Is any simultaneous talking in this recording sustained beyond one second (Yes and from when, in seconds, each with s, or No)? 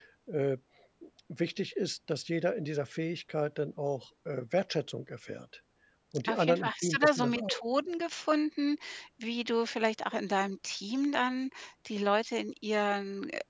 Yes, from 6.2 s